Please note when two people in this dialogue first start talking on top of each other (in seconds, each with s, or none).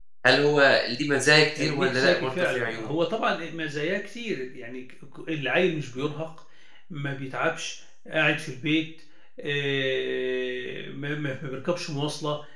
1.6 s